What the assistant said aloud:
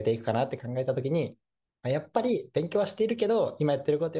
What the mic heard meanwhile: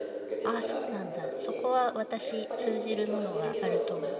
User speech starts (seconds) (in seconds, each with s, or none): 0.4 s